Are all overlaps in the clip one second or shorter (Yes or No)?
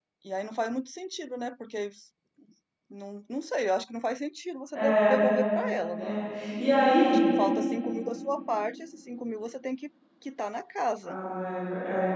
Yes